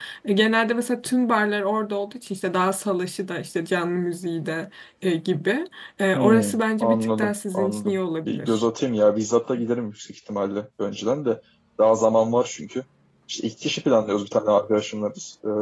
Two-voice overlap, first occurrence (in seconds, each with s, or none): 6.2 s